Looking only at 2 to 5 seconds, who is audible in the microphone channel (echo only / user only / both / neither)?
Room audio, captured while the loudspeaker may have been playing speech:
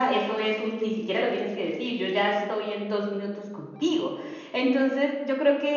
echo only